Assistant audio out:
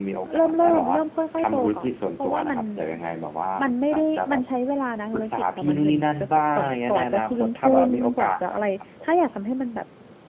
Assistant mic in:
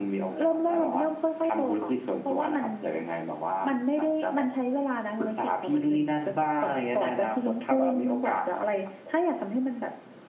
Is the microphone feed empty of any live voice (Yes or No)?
Yes